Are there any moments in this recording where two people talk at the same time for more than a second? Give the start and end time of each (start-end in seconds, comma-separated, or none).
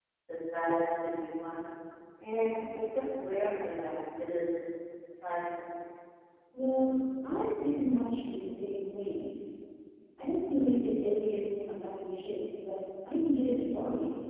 none